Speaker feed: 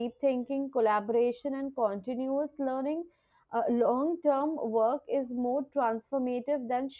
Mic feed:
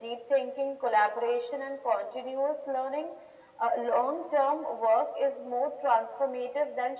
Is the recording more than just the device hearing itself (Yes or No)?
No